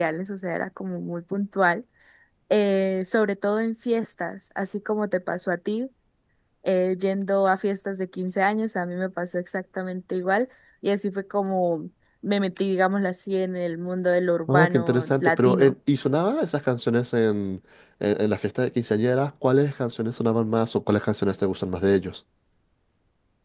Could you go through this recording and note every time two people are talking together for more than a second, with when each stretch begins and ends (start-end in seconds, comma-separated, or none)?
14.5-15.7